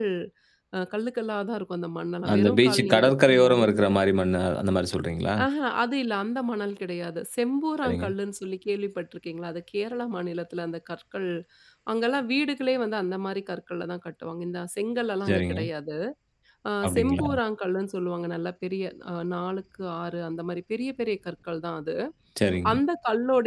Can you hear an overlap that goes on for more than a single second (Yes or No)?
Yes